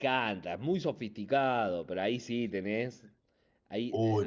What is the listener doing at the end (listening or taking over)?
listening